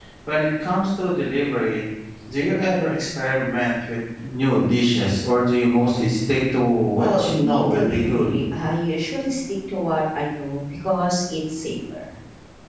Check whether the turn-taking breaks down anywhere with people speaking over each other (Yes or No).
Yes